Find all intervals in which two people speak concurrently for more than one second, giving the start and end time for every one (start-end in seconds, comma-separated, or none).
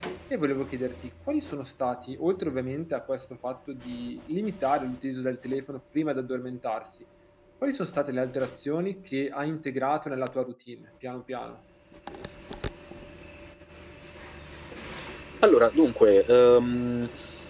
none